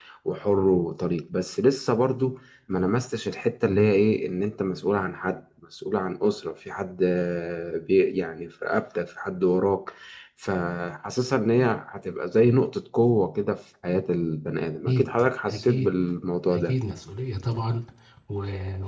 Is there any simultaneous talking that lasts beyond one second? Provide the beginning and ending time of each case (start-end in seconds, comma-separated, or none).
none